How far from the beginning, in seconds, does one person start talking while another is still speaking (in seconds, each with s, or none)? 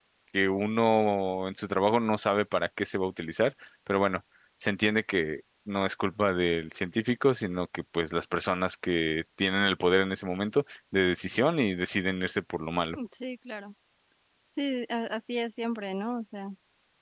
none